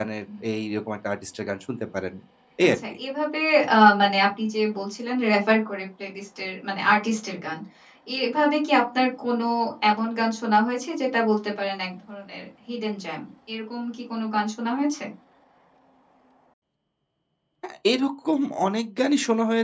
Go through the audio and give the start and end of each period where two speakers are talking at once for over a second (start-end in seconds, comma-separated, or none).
none